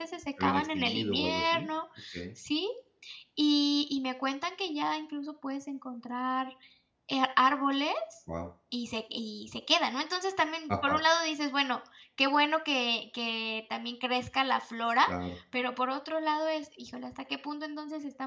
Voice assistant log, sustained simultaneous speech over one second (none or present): present